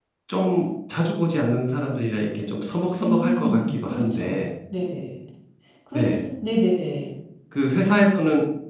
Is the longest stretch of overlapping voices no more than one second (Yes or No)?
No